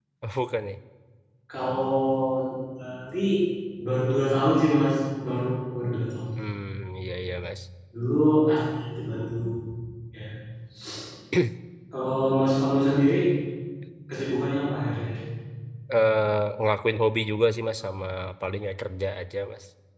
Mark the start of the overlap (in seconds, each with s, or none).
none